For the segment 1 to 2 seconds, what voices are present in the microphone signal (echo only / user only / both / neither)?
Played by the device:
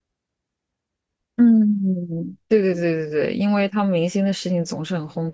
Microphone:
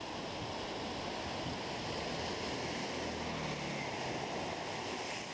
neither